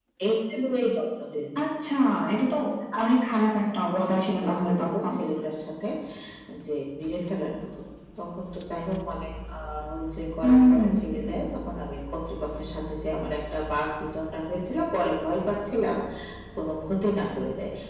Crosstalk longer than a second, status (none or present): present